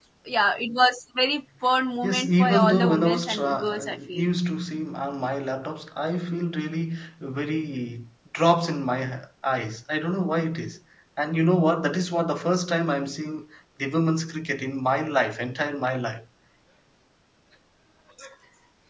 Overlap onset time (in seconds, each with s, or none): 2.0 s